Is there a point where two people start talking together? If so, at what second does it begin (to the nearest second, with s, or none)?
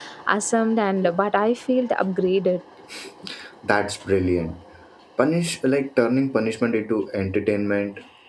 none